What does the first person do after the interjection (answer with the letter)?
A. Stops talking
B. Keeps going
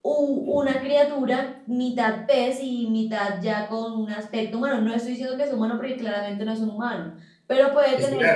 B